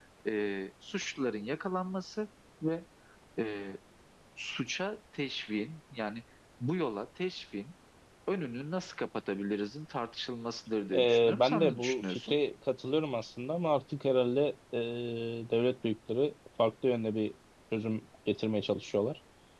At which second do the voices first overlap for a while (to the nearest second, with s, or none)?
11 s